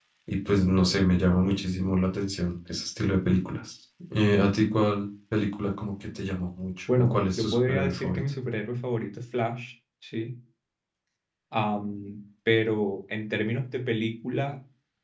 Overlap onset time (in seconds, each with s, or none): 6.9 s